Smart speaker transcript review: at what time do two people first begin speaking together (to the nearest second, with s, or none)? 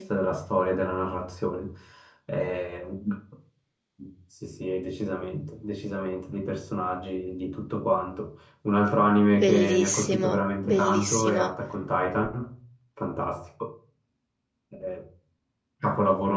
9 s